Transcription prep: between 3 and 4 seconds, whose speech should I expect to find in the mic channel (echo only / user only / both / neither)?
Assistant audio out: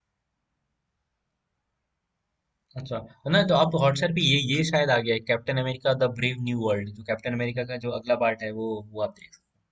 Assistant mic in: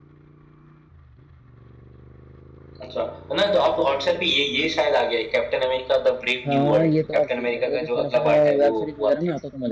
echo only